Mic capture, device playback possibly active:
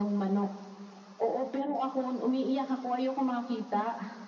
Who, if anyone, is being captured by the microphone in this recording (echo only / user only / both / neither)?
echo only